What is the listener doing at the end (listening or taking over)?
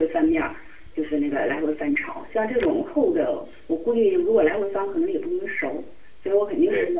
listening